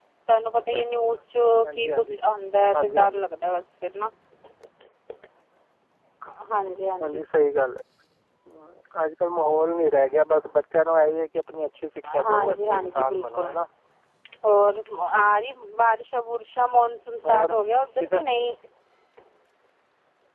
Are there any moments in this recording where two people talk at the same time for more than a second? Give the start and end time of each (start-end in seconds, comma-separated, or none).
12.2-13.5